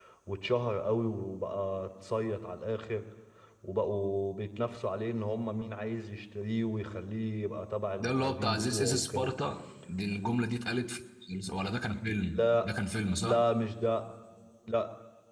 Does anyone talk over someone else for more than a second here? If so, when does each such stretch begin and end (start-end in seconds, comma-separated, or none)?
8.0-9.3